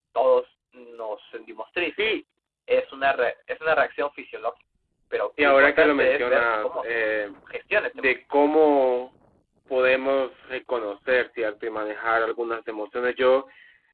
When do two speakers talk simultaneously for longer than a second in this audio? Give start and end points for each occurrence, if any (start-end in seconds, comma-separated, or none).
5.4-7.0